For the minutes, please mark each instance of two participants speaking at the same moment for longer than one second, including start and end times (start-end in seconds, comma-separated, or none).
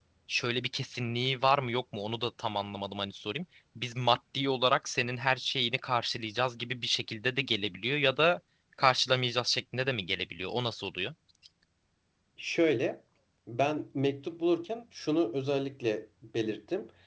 none